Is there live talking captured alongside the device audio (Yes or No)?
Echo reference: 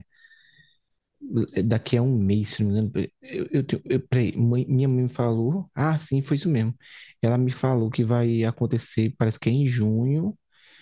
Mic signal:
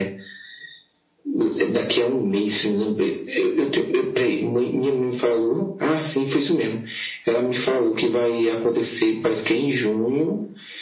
No